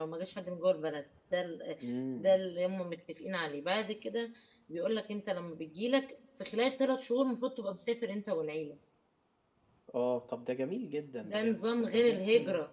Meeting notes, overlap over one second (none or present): present